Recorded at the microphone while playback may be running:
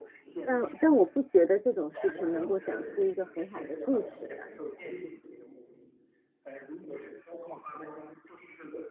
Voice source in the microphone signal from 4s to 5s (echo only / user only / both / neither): both